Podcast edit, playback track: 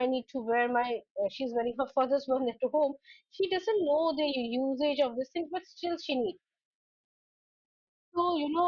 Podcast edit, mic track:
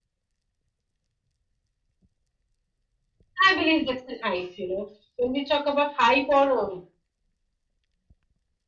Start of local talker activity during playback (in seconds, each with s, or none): 3.4 s